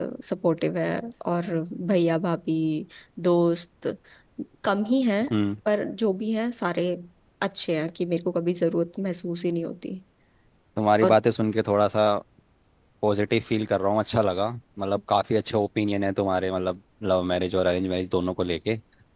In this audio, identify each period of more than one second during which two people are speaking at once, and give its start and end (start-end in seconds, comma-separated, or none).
none